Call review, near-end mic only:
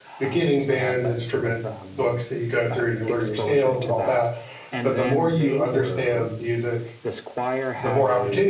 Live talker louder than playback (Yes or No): Yes